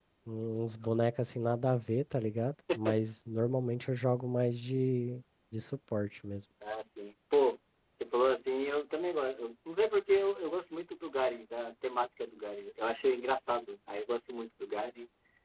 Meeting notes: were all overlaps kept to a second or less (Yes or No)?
Yes